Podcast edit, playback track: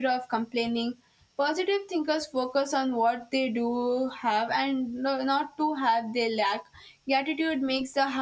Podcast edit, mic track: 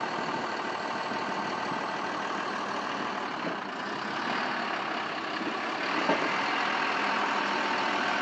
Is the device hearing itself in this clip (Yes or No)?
No